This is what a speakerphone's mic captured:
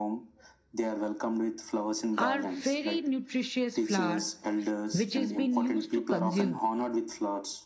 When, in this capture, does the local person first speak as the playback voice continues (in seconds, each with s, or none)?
2.2 s